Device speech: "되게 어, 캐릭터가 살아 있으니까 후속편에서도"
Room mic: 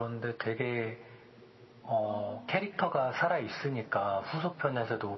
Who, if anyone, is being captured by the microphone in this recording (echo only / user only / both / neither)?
both